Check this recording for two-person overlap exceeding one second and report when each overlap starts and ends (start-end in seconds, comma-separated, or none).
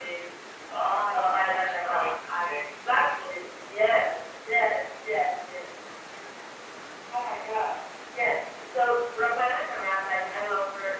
0.8-2.7